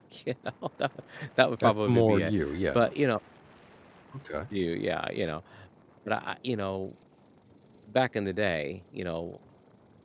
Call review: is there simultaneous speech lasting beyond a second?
Yes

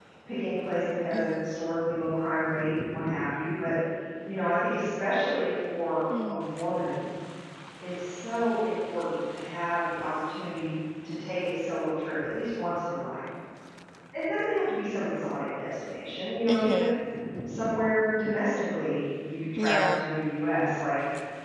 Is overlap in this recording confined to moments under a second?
Yes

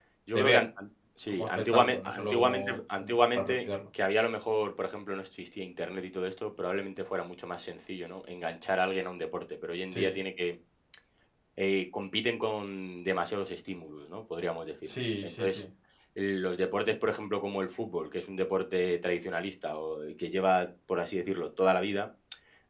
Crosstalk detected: Yes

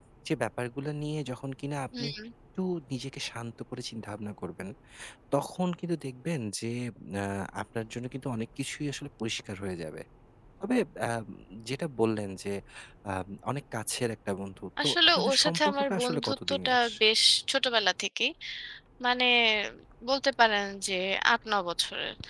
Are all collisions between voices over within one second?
No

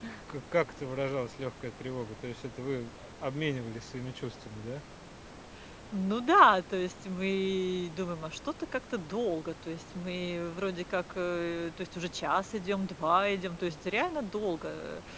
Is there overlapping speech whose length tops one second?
No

